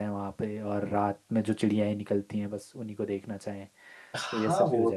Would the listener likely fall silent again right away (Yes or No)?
No